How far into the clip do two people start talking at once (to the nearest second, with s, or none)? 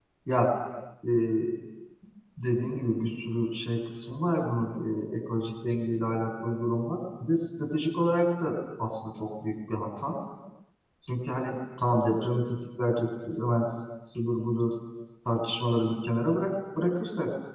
none